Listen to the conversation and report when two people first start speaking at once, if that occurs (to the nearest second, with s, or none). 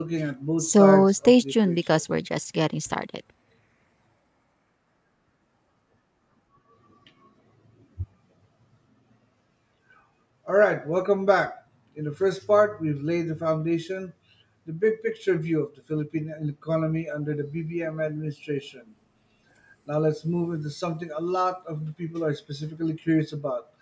1 s